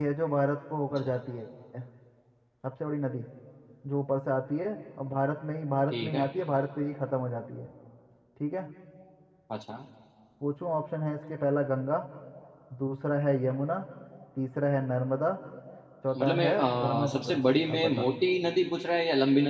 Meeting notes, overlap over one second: present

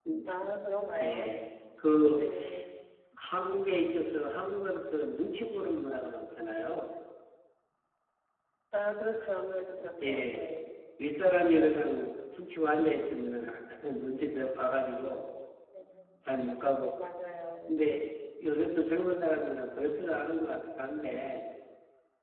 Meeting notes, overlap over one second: none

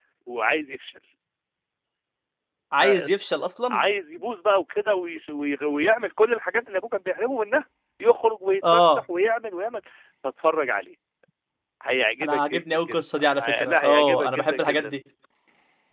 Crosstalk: present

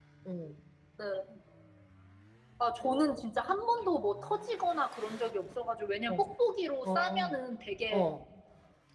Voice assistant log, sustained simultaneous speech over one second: none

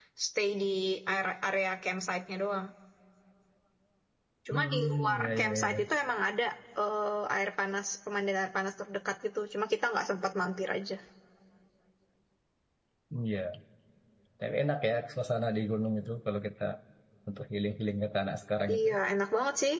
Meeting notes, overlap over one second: present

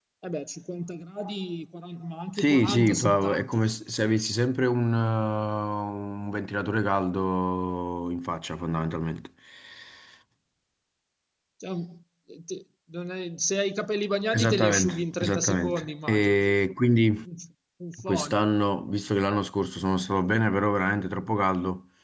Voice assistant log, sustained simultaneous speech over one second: present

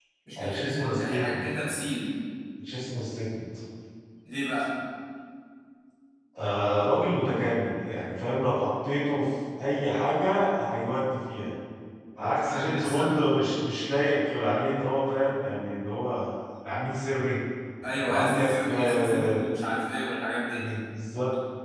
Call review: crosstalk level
present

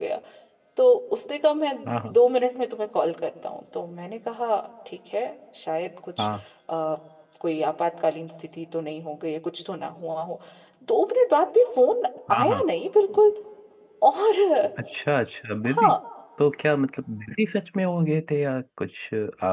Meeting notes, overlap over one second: none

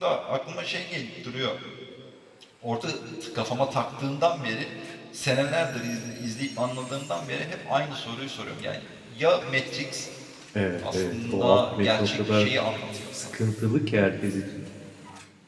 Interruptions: present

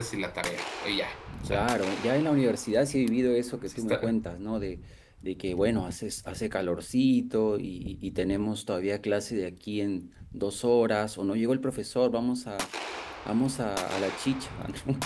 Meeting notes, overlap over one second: none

